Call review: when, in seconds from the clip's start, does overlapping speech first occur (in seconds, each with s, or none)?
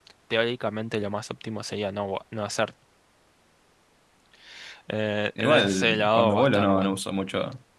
5.4 s